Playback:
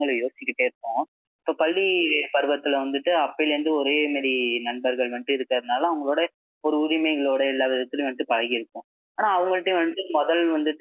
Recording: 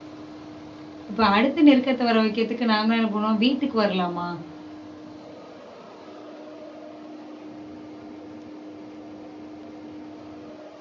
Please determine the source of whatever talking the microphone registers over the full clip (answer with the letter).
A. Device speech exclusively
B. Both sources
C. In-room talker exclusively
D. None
C